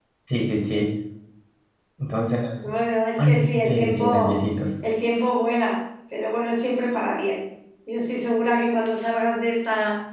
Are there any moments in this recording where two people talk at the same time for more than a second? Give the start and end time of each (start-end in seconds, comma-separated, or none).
3.2-4.4